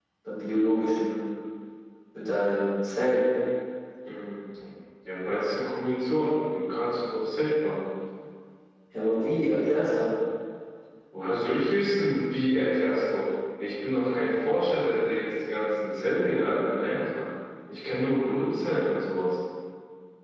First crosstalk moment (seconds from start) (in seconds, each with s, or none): none